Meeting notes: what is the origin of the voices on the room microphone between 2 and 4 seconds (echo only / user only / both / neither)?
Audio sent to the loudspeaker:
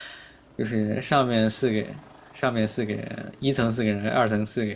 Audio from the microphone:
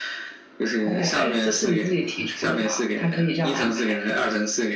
both